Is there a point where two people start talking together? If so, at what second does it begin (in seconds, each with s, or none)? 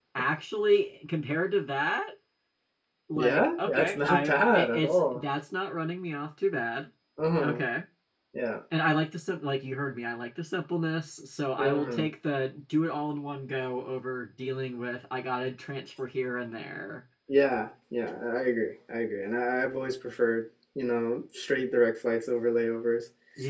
3.2 s